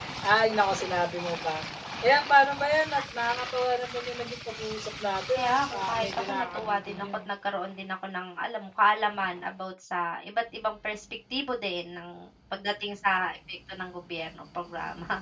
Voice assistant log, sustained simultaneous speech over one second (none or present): present